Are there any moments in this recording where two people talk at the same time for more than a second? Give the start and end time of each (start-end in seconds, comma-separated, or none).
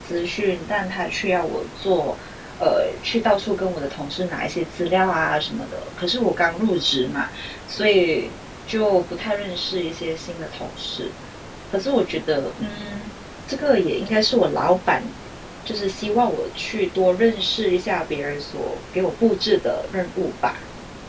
none